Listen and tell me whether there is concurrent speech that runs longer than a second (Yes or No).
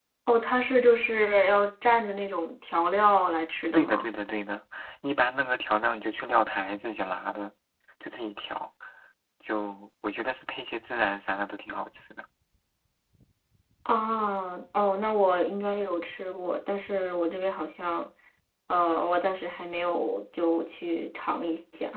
No